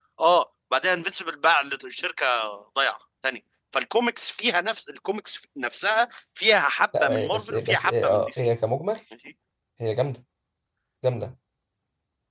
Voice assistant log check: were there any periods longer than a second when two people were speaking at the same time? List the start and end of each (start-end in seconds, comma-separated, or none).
7.0-8.5